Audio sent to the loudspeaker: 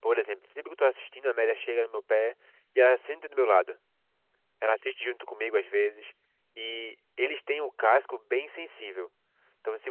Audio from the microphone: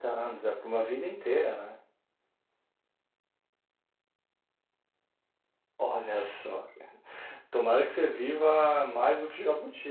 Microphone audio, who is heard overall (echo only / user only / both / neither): user only